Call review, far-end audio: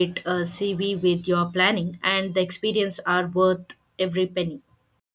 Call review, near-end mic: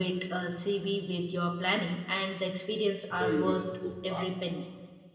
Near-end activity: present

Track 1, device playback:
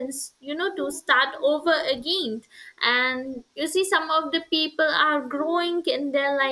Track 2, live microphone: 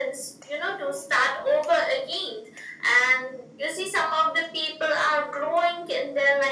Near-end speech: none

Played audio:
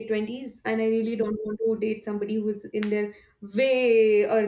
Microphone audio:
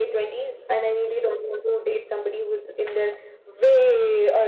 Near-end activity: none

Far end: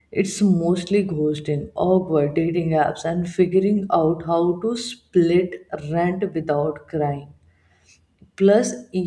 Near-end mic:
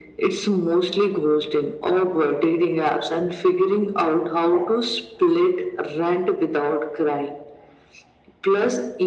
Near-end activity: none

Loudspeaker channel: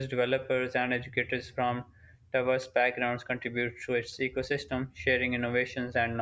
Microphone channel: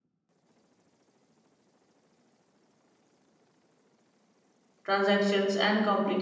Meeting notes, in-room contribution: present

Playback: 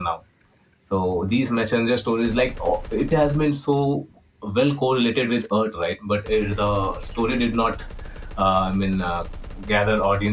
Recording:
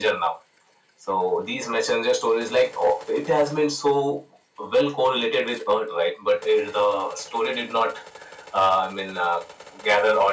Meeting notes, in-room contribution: none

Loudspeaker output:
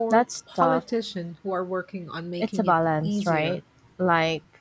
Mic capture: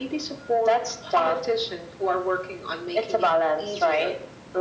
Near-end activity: none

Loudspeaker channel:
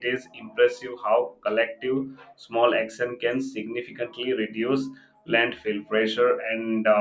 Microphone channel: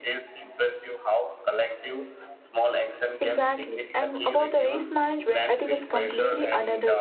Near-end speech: present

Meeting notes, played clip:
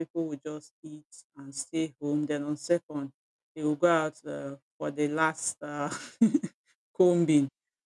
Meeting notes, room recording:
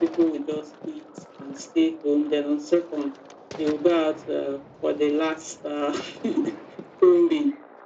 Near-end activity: none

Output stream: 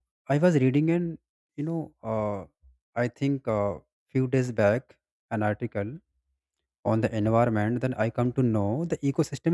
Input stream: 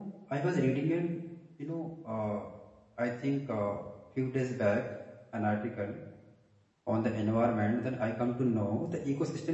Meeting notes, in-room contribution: none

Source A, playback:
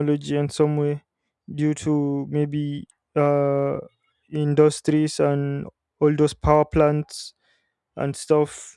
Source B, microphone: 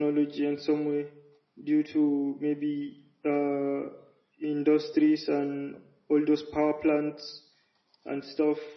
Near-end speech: none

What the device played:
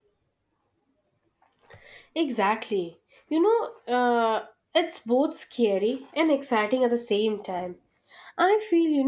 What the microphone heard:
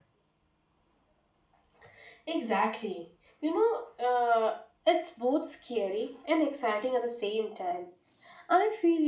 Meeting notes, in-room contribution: none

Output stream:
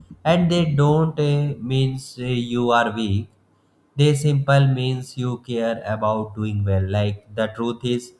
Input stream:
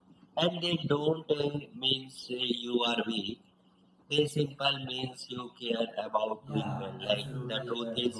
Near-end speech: present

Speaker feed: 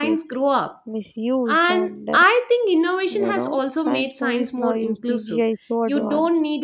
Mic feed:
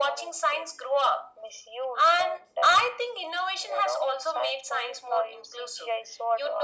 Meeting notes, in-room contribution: none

